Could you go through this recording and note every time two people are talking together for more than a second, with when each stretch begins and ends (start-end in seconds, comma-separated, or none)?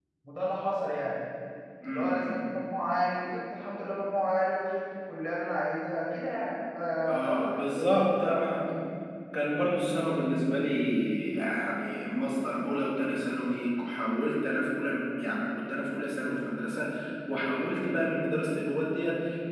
7.1-8.4